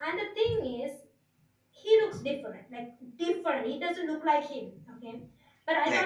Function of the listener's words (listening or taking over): listening